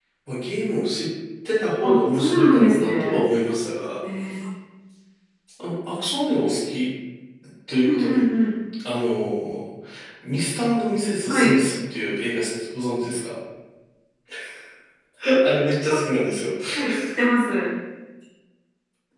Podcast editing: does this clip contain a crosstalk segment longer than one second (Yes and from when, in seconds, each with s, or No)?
Yes, from 1.8 s